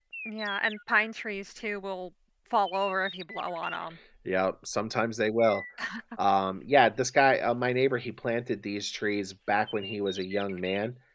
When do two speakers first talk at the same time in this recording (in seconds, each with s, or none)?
none